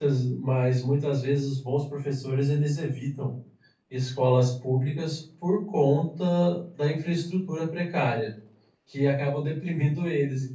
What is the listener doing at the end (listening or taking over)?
listening